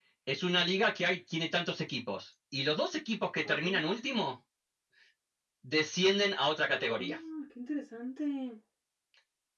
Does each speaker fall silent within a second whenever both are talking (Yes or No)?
Yes